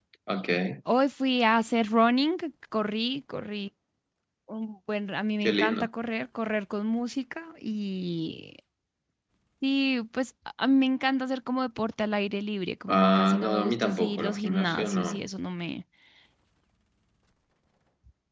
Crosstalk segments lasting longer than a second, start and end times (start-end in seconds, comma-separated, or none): 12.9-15.2